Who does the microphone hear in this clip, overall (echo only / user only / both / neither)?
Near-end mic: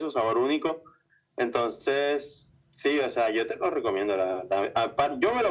echo only